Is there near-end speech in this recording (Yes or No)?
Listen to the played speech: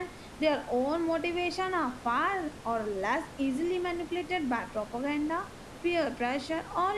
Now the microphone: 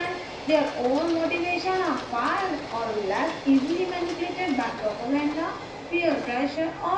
No